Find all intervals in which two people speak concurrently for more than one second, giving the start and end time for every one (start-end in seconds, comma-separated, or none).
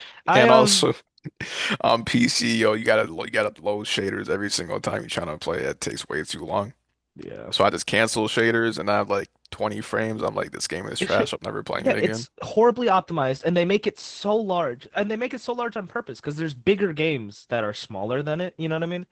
none